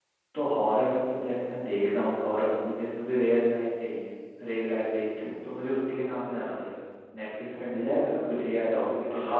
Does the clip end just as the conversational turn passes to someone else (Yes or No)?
Yes